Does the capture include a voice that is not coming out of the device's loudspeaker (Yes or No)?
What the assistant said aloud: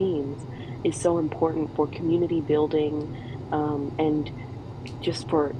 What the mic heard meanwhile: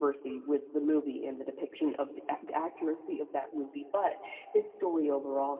Yes